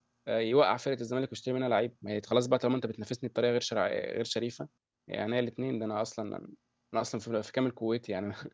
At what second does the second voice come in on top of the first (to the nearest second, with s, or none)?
none